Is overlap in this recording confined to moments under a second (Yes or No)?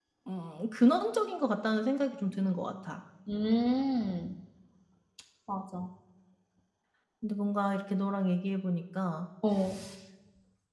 Yes